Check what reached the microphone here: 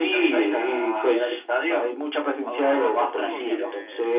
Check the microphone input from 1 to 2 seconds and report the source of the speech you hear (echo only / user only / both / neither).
echo only